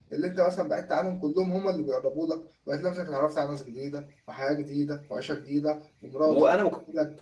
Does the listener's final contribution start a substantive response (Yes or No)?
Yes